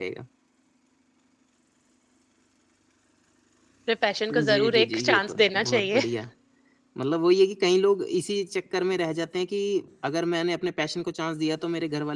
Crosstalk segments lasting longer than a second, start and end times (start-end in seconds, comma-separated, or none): 4.3-6.0